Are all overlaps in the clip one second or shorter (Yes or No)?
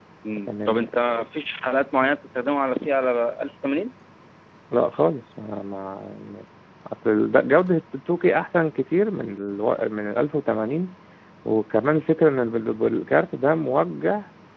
Yes